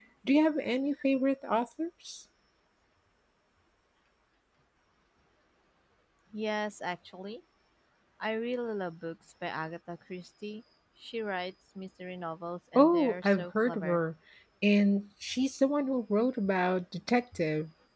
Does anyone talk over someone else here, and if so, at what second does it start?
12.8 s

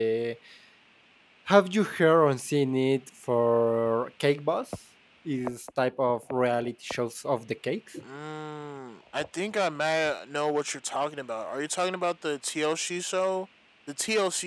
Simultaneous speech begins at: none

